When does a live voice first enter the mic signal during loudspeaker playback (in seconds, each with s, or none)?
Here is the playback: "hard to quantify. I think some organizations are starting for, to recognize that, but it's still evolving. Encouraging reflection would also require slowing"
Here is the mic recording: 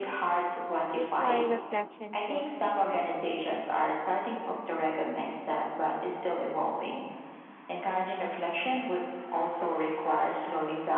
0.9 s